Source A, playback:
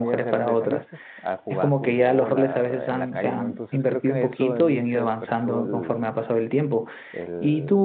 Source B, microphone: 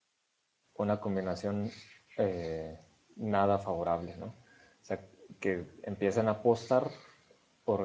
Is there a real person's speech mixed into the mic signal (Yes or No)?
Yes